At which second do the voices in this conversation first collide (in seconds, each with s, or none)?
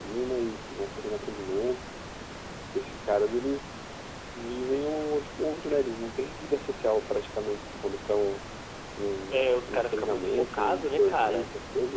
9.3 s